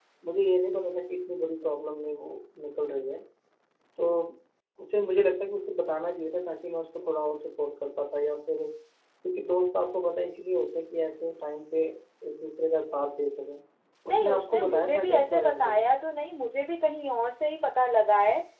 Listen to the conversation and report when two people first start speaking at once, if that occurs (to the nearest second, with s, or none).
14 s